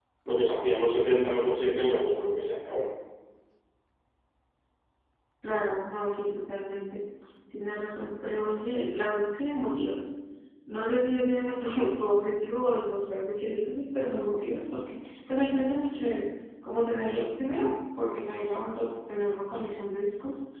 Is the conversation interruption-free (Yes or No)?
Yes